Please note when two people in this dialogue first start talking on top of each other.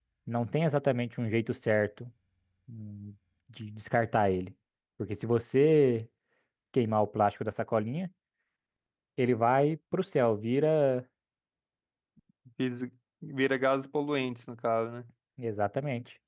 none

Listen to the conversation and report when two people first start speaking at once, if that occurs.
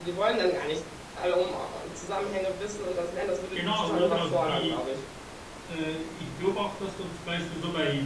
3.5 s

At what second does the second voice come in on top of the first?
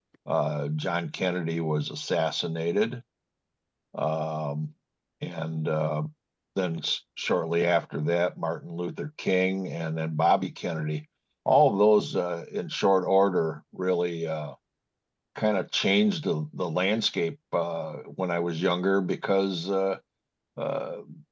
none

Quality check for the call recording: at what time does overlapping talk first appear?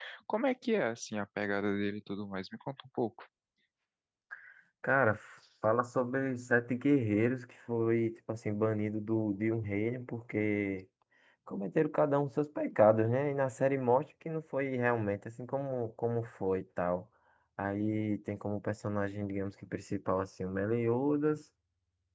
none

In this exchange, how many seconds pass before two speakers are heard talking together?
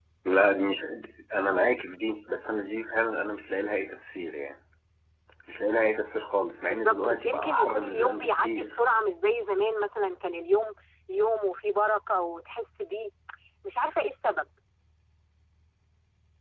6.7 s

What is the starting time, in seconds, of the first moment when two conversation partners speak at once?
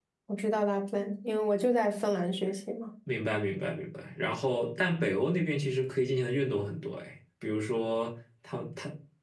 none

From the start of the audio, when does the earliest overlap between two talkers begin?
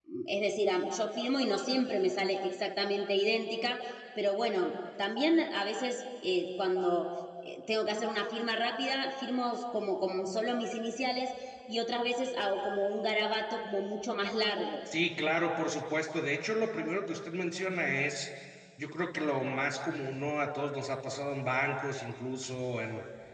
none

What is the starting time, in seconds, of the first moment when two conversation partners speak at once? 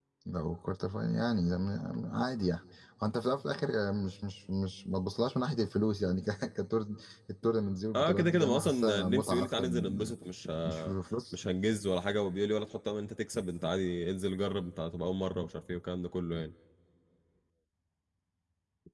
8.0 s

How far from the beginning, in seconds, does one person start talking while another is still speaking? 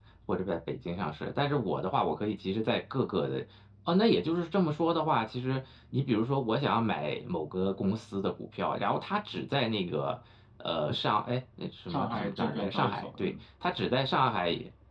11.9 s

